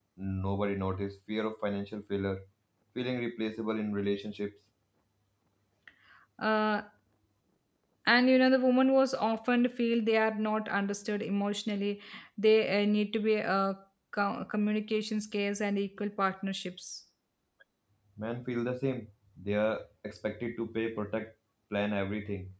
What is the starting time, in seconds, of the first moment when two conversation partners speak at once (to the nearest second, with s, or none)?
none